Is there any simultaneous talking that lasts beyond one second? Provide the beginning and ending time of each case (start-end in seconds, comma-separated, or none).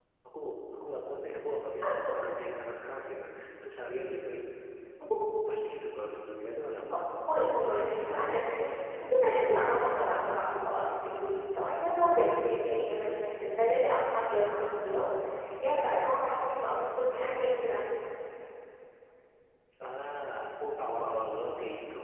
none